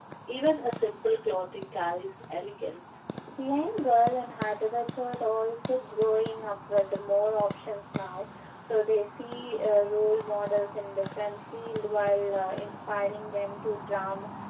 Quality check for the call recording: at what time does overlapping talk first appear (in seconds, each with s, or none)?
none